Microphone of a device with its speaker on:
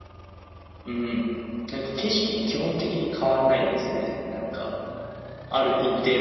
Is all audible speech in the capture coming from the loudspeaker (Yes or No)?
Yes